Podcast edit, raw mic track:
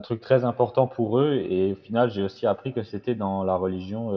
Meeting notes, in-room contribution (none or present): present